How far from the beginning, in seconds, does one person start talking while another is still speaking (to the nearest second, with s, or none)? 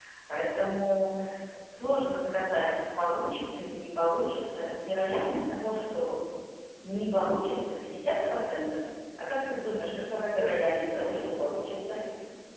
10 s